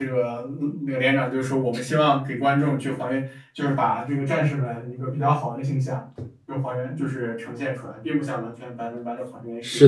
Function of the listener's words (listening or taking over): taking over